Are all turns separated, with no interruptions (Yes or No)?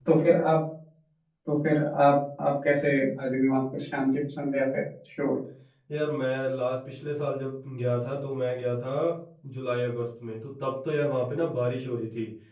Yes